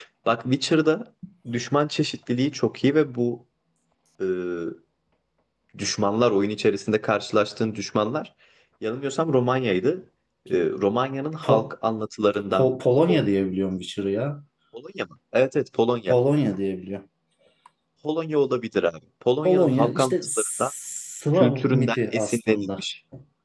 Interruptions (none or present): present